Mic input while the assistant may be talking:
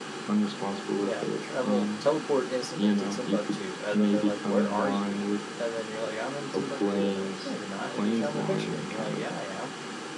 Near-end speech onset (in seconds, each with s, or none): 1.0 s